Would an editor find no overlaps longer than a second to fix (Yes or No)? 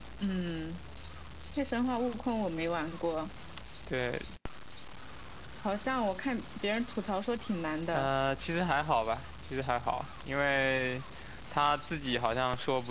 Yes